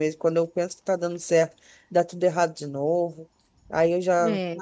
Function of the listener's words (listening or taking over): listening